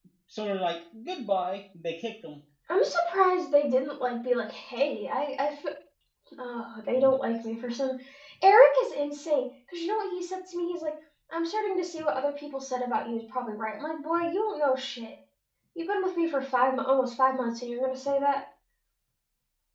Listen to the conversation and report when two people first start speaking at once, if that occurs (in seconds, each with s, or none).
none